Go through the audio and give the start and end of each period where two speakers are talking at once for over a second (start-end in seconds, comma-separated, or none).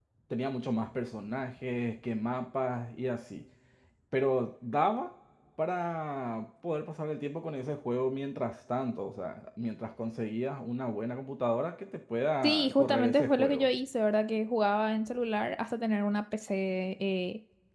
12.4-13.7